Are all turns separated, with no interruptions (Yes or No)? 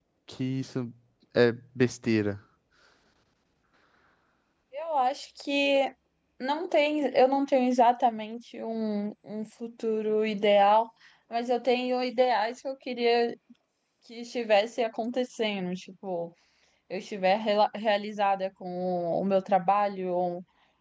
Yes